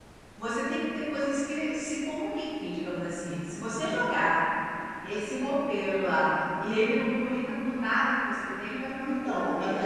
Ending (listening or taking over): taking over